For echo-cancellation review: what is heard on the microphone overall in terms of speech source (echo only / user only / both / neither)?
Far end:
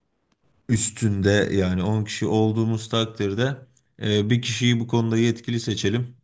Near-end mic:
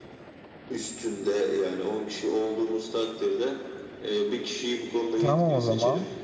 both